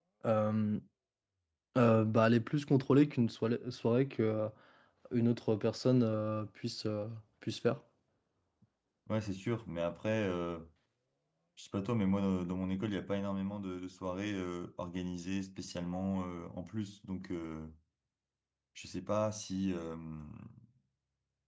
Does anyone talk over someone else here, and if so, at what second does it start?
none

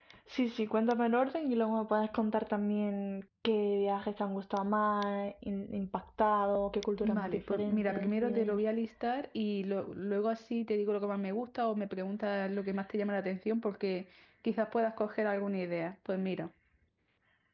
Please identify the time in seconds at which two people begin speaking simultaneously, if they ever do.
7 s

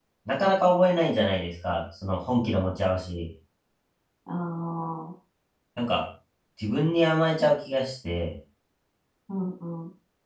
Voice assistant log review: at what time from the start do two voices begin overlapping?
none

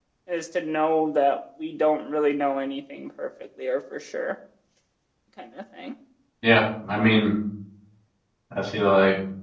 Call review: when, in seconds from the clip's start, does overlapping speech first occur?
none

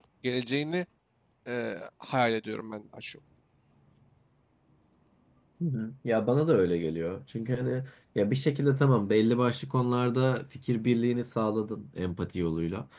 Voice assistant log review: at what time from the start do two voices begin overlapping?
none

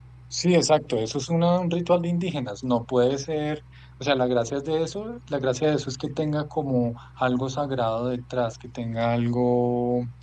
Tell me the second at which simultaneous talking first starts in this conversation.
none

